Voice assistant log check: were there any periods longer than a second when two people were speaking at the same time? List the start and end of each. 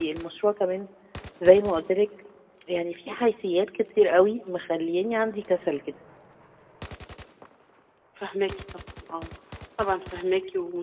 none

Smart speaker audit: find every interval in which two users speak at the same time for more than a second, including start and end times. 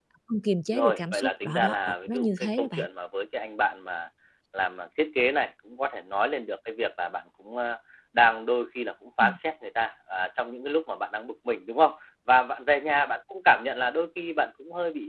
0.7-2.9

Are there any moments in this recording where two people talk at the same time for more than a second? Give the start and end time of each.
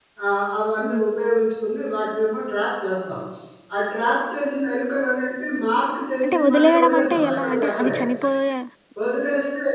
6.2-7.9

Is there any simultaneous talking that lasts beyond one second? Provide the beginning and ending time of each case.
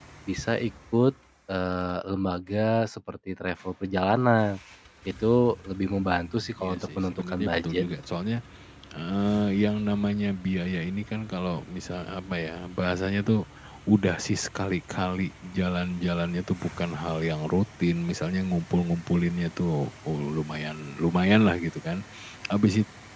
6.6-7.8

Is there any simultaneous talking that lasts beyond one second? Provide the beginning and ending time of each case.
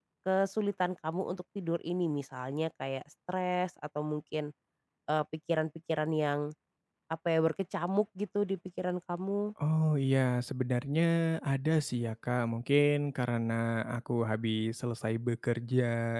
none

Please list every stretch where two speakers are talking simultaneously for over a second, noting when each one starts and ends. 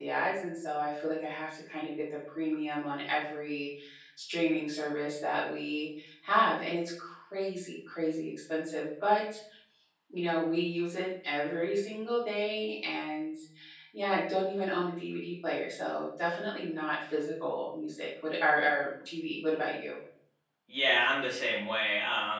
none

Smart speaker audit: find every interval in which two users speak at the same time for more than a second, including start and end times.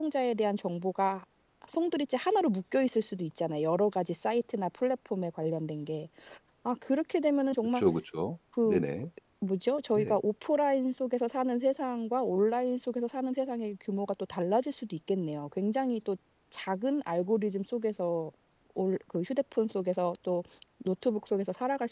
none

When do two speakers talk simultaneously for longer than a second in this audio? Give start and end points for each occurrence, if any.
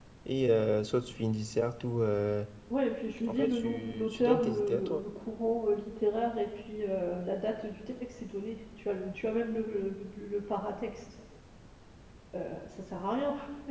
3.3-5.0

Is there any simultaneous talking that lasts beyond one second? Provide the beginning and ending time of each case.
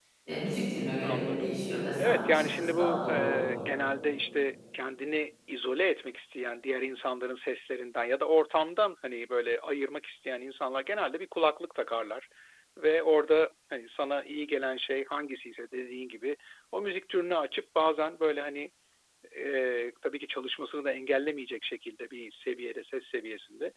2.0-3.5

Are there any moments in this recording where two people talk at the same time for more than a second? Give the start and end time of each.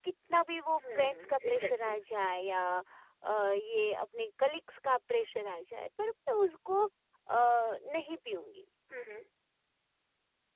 0.8-2.0

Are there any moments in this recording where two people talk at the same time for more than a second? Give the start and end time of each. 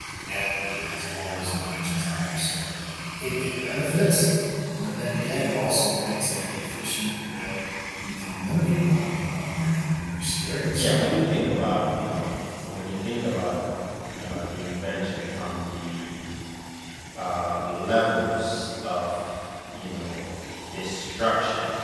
none

